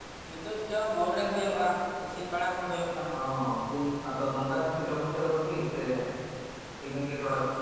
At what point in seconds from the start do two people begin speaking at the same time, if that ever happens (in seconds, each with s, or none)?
none